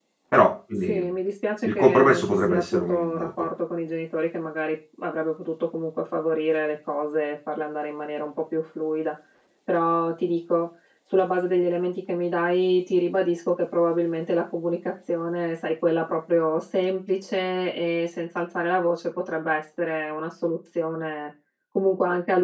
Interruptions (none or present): present